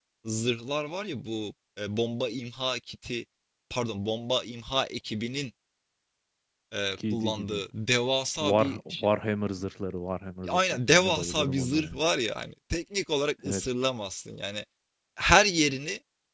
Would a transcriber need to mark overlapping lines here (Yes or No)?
Yes